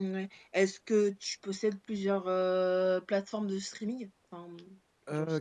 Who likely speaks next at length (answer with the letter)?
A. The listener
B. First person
A